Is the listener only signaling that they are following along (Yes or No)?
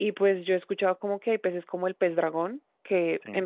Yes